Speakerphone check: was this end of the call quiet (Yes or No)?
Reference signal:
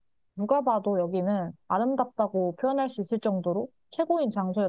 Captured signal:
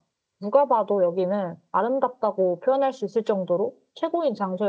Yes